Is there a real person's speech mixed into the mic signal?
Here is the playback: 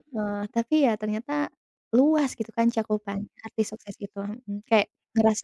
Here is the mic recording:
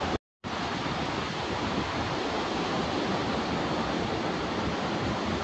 No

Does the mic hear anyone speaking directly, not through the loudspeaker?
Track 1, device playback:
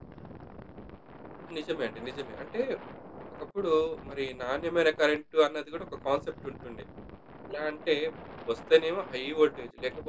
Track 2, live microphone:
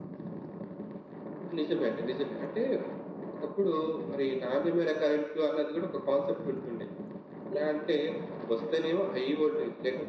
No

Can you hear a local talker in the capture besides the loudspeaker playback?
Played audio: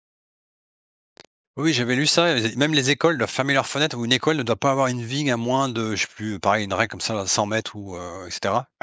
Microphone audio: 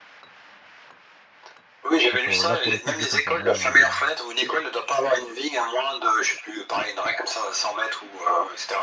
Yes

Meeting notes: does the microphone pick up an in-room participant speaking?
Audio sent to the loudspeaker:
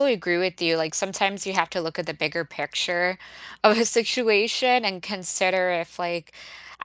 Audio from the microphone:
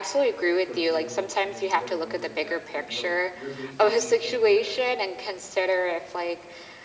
Yes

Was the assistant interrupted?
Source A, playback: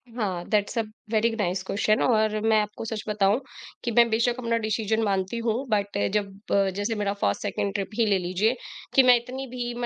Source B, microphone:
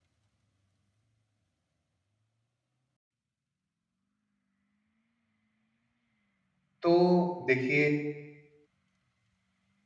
Yes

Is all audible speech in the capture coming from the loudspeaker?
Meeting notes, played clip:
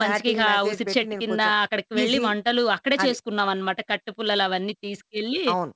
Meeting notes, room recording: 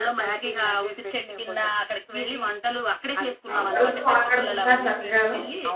No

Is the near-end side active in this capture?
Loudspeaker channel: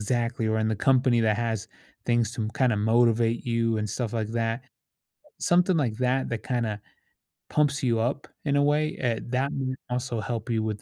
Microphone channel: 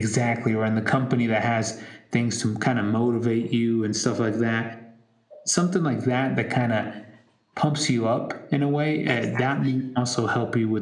Yes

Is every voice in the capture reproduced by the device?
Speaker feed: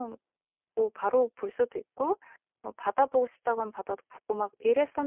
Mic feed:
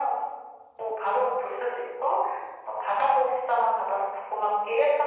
Yes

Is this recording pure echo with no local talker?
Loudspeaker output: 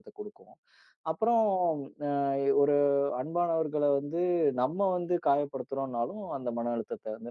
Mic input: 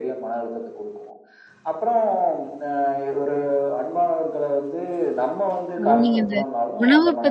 No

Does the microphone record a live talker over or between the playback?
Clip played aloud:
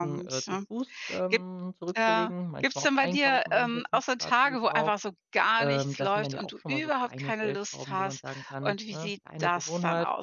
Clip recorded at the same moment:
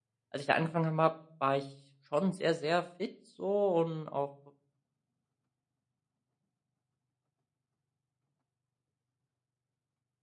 Yes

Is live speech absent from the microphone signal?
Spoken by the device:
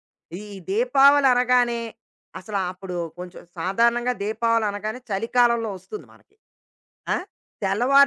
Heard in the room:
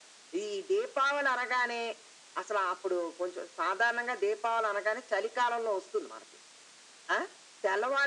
Yes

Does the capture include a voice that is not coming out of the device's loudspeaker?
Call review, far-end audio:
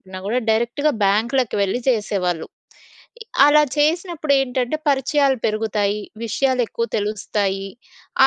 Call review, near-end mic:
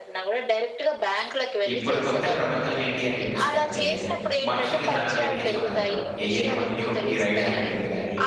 Yes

